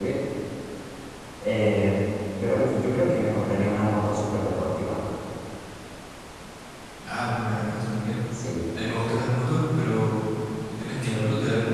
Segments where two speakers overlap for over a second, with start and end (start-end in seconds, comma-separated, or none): none